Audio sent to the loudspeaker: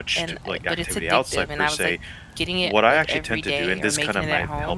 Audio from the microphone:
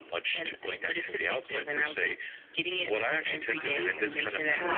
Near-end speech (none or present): present